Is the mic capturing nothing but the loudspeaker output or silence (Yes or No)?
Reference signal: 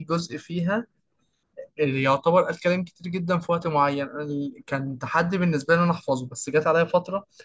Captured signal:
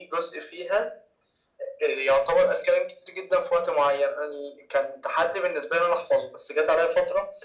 Yes